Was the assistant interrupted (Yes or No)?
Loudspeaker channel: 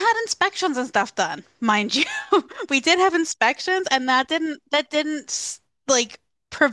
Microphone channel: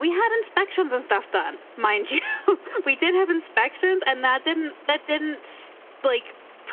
No